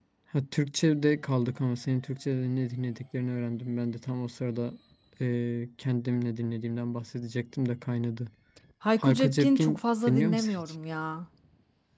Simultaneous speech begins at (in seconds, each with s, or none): 9.0 s